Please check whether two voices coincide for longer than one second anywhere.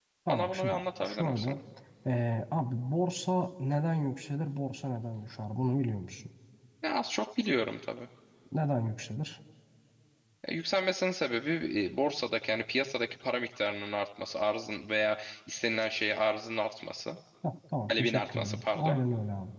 Yes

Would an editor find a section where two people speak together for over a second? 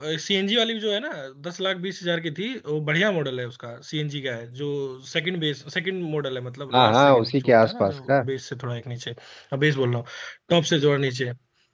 Yes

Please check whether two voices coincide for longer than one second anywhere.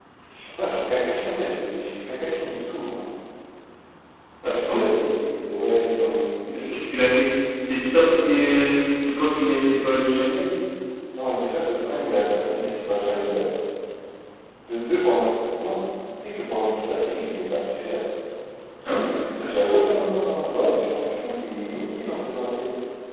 No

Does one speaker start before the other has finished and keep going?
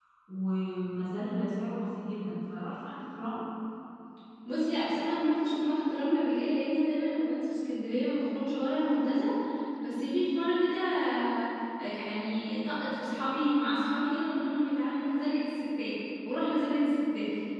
No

